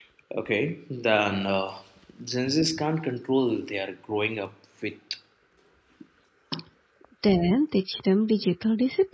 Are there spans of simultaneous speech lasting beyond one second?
No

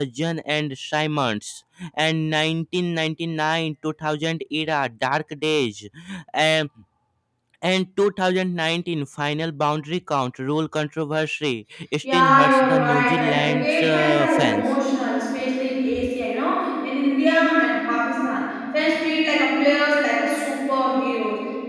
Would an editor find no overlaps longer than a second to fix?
No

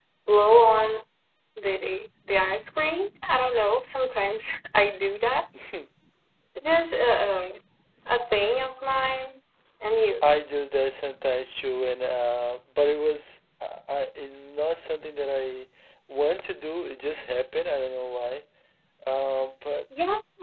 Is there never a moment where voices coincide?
Yes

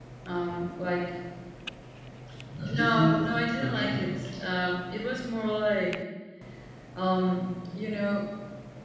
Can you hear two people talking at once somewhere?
Yes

